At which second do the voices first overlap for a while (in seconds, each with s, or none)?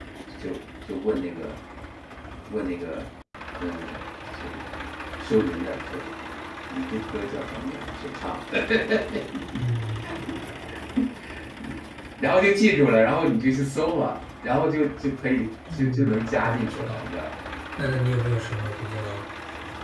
15.7 s